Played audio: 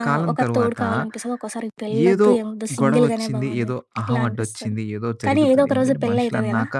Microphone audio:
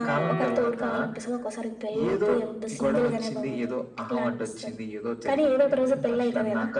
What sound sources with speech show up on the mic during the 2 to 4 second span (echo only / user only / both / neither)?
echo only